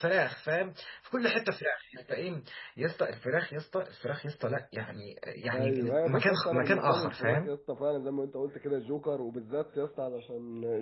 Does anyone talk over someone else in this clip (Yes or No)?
Yes